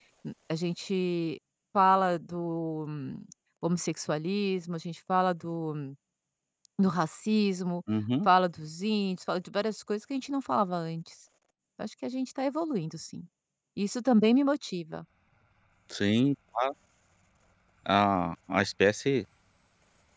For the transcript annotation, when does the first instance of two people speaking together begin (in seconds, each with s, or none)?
none